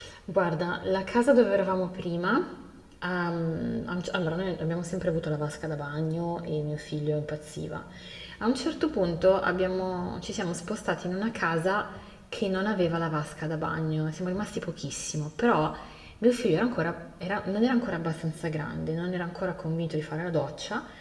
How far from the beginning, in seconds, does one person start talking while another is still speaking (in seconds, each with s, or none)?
none